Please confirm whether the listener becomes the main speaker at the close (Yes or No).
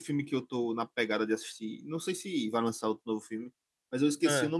No